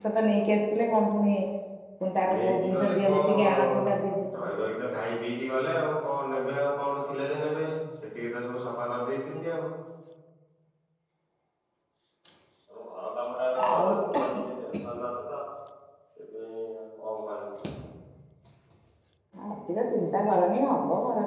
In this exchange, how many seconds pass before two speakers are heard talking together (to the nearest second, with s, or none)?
2 s